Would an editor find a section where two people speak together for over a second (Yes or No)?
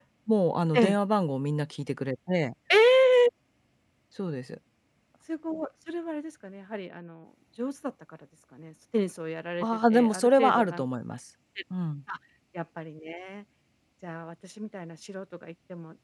Yes